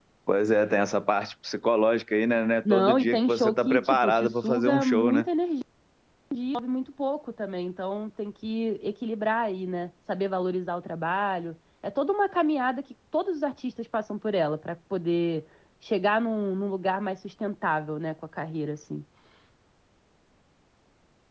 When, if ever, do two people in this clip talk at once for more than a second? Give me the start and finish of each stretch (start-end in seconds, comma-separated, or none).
2.7-5.2